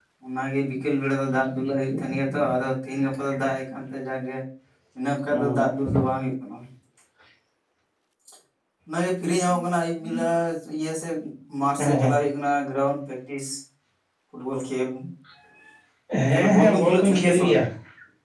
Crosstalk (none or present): present